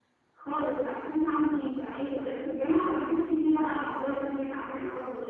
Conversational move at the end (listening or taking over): taking over